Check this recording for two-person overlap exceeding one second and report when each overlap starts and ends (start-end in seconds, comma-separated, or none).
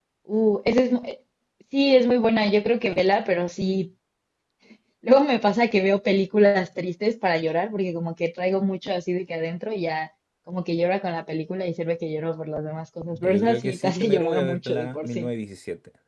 13.1-15.3